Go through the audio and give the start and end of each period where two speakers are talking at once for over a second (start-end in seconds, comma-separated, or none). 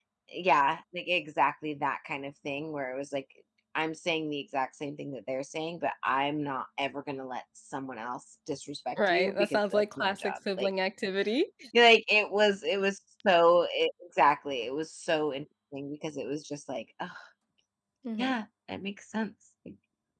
9.1-10.7